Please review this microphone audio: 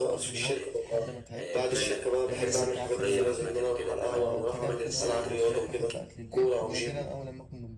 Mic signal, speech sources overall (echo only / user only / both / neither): both